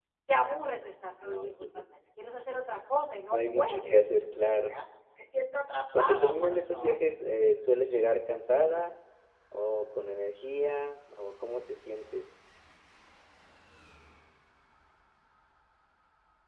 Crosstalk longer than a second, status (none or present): present